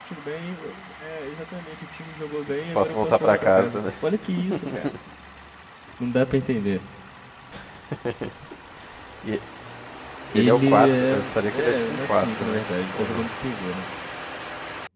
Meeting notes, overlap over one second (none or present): present